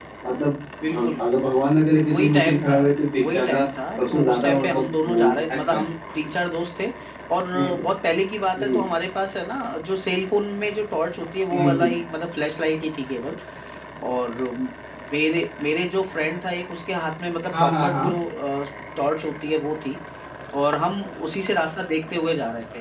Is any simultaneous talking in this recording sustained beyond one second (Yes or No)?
Yes